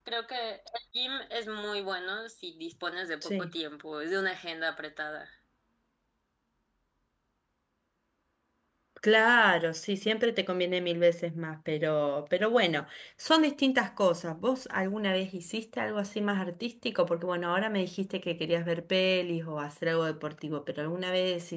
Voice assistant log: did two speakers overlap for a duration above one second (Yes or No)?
No